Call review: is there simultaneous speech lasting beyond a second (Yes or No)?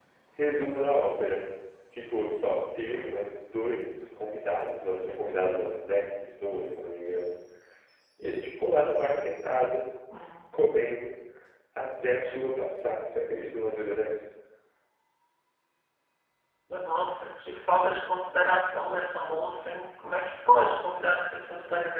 No